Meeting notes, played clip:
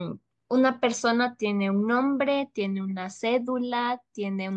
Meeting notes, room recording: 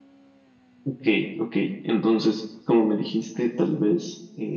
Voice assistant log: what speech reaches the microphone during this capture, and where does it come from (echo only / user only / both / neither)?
user only